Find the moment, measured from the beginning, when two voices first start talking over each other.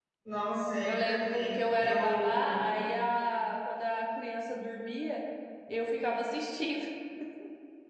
0.8 s

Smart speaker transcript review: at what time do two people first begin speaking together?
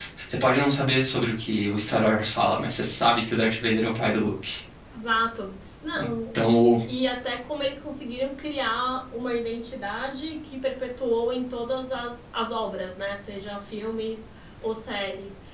none

